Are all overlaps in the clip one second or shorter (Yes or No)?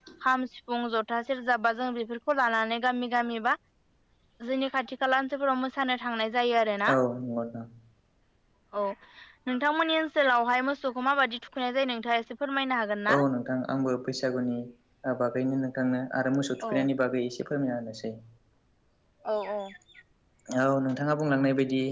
Yes